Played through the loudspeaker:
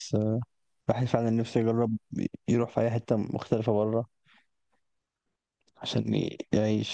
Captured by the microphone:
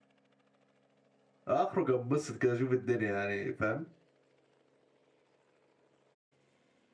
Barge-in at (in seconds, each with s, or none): 1.5 s